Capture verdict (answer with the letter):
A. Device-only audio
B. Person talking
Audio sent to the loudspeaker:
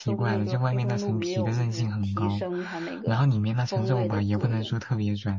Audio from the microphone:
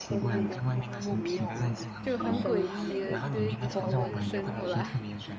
B